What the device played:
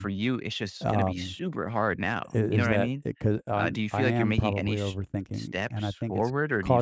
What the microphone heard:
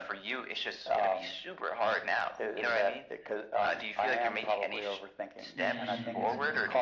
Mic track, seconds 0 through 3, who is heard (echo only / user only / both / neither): echo only